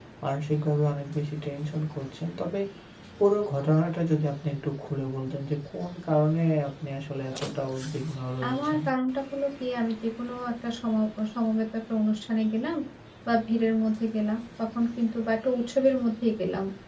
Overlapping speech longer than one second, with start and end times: none

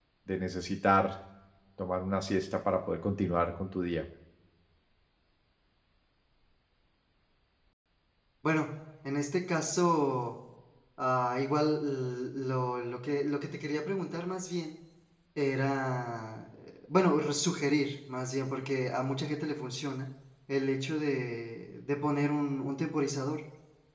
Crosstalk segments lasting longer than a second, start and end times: none

